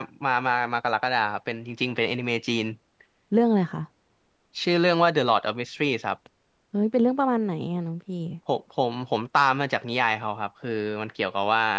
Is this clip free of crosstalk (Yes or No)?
Yes